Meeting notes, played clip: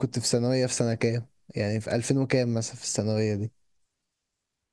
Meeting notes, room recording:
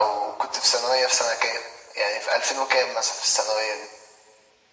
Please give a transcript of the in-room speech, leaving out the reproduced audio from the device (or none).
none